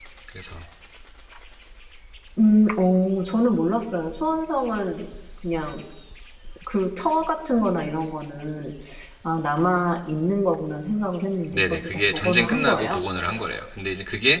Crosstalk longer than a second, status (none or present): present